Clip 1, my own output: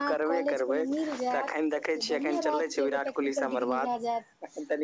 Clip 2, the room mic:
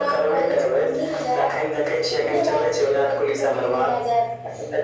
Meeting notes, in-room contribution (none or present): none